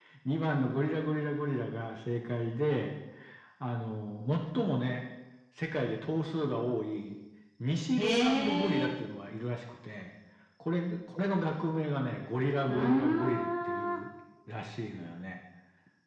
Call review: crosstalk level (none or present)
present